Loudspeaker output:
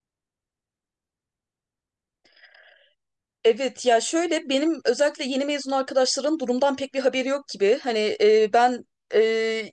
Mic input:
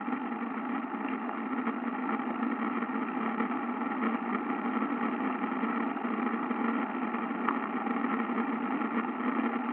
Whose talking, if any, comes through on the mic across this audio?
neither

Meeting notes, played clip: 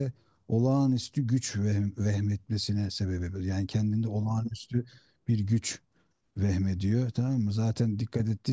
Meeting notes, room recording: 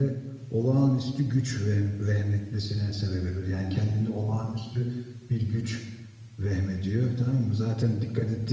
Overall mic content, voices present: echo only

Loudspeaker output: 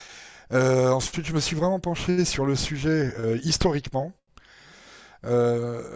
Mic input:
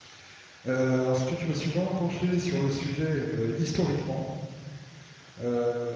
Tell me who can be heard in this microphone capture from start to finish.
echo only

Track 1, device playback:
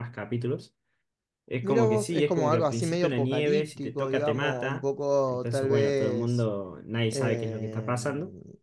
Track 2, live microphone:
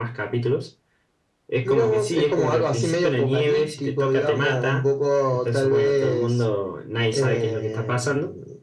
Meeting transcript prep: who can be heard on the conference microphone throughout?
echo only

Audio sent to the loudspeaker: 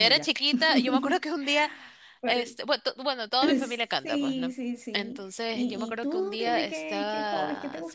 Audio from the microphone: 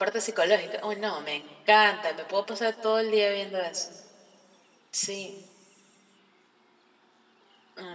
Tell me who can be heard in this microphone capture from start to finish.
user only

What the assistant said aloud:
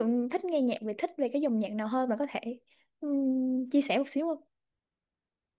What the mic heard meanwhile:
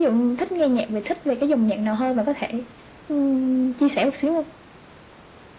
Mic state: echo only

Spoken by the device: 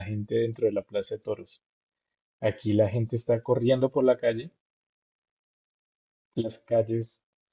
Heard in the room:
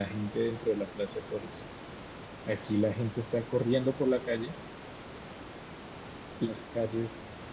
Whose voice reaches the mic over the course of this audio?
echo only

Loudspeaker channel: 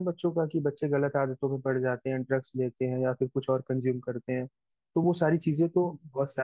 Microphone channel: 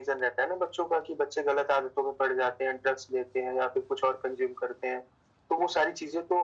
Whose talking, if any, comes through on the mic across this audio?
echo only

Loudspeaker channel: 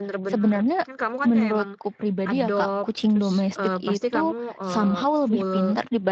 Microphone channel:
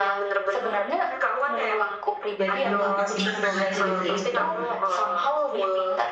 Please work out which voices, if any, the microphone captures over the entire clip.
both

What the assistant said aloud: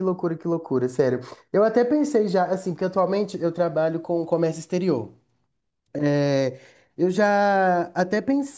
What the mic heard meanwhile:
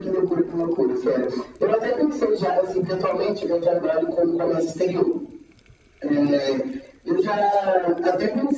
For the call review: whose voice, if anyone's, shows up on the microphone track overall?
echo only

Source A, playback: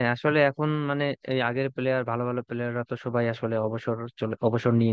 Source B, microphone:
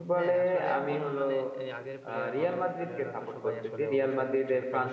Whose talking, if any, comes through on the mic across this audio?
both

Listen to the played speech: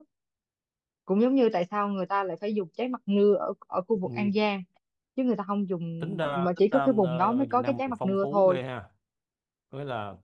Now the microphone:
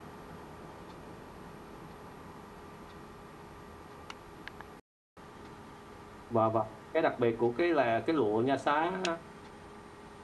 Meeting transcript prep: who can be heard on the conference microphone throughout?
user only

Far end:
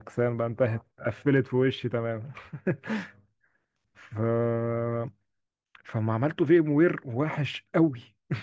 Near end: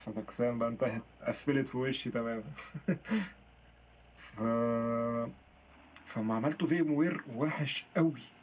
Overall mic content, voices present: echo only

